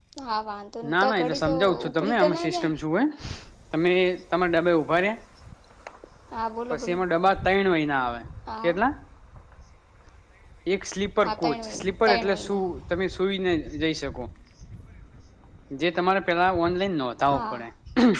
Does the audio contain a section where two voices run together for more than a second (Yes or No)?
Yes